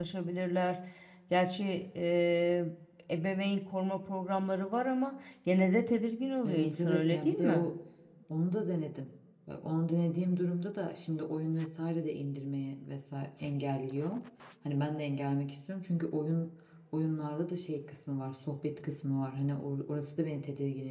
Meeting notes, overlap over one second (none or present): present